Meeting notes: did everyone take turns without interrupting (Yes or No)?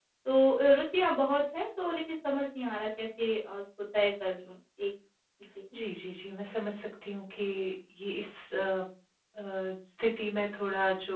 Yes